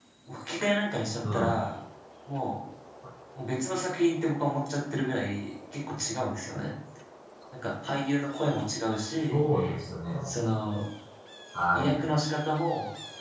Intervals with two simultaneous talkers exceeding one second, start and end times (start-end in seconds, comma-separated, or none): none